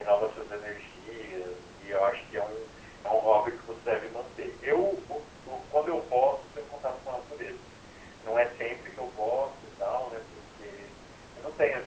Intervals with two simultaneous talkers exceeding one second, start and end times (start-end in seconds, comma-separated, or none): none